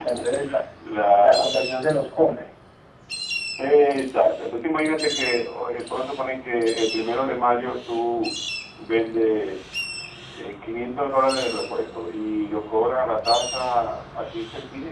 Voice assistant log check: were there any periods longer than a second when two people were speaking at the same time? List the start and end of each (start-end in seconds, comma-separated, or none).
none